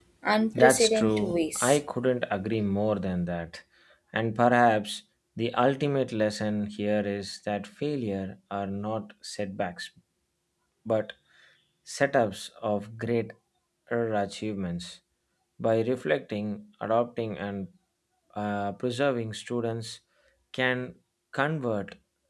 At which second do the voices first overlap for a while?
0.6 s

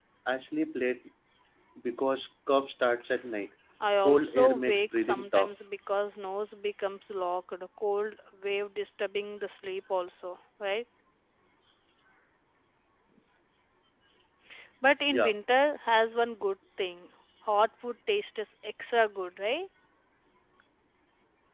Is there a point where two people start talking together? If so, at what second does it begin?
4.0 s

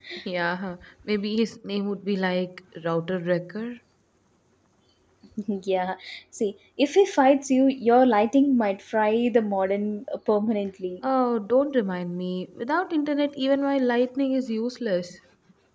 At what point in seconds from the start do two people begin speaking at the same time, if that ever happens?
none

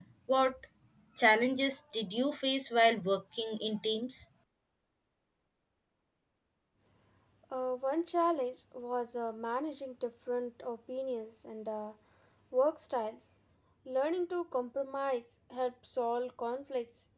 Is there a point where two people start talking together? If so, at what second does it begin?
none

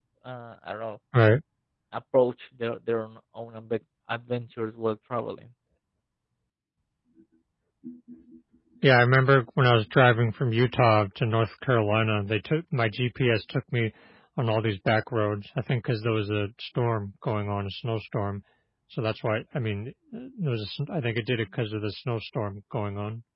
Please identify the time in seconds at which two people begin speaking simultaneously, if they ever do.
none

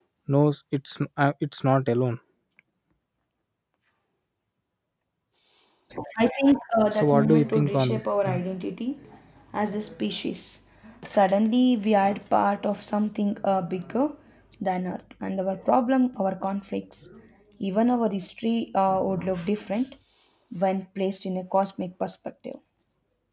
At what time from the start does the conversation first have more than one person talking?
6.9 s

